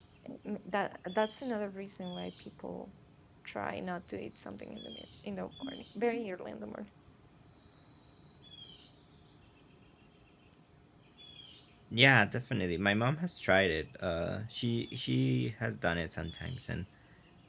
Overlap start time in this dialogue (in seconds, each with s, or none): none